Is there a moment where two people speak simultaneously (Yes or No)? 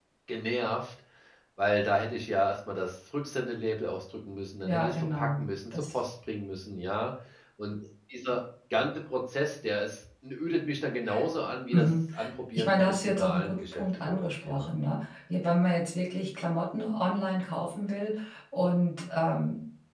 Yes